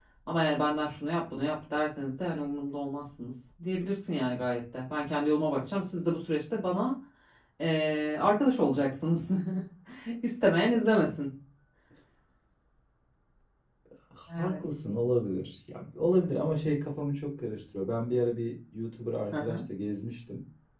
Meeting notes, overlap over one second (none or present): none